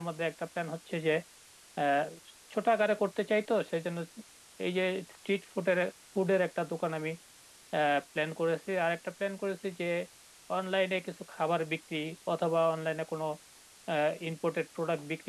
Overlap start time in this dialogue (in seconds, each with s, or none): none